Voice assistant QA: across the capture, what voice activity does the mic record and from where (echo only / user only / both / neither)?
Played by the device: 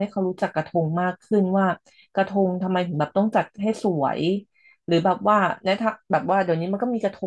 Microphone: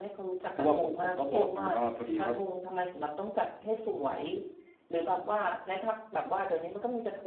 both